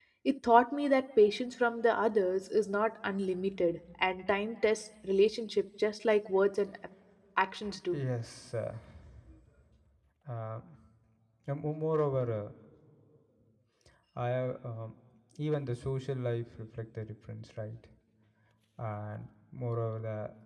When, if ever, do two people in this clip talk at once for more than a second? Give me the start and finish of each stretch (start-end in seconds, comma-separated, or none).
none